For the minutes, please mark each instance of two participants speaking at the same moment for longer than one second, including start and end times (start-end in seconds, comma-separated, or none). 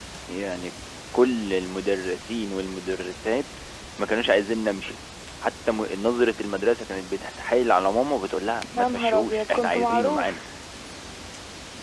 8.7-10.4